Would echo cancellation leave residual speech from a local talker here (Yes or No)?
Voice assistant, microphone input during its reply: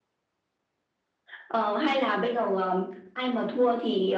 No